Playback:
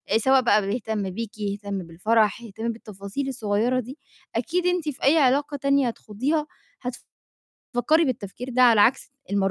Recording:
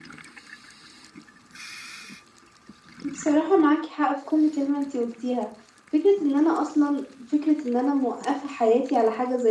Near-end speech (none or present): present